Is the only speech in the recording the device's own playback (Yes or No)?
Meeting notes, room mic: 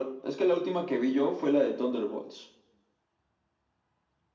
Yes